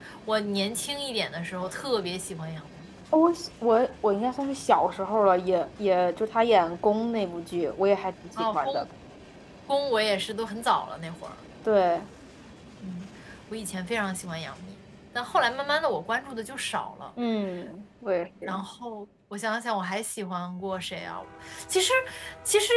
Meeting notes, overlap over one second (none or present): none